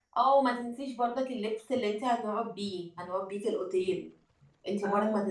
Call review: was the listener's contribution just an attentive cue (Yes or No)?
Yes